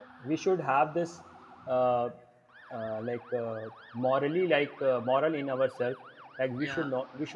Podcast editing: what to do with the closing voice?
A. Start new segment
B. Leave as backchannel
B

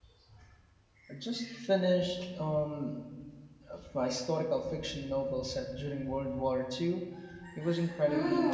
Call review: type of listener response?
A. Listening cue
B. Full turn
B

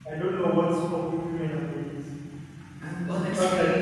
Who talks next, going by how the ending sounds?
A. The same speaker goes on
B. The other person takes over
A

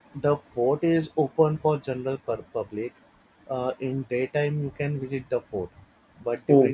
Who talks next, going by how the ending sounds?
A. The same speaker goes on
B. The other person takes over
A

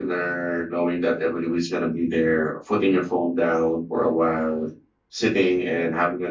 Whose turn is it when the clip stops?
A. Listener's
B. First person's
B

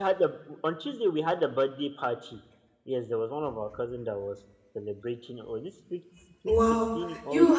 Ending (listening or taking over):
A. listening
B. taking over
B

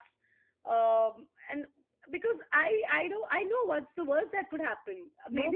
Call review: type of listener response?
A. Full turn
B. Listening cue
A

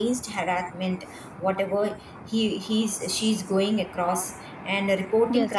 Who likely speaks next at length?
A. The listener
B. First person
B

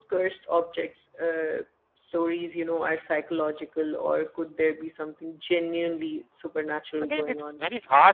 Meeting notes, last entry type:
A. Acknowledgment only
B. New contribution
B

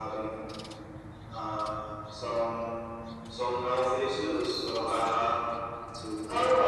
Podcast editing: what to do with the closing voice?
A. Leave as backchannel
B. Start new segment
A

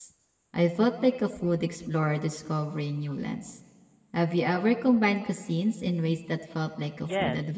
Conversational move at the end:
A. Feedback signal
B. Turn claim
B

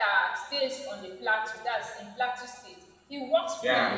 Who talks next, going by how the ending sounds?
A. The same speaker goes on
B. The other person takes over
A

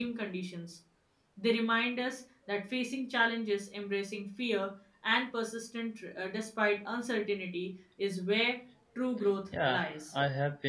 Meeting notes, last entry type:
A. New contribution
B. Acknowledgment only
A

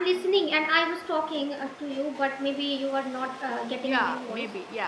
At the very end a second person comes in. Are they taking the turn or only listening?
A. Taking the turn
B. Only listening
A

